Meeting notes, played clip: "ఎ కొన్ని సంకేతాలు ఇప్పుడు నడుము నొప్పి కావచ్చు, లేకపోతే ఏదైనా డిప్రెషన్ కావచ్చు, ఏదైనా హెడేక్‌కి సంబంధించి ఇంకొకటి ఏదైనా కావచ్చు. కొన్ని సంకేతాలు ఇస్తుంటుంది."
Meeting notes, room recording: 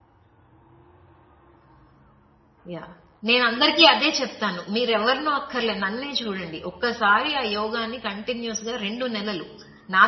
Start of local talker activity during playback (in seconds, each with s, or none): 2.7 s